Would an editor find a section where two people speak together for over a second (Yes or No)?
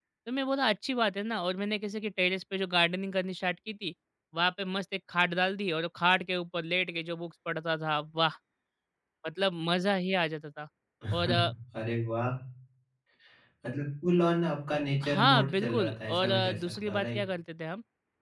Yes